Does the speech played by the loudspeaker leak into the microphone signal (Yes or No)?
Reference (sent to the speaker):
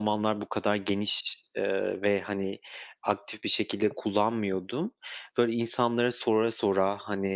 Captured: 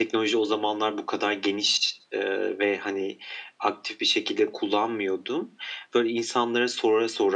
Yes